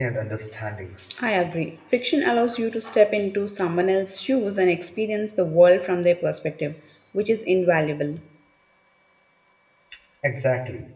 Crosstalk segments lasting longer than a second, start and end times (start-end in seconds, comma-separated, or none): none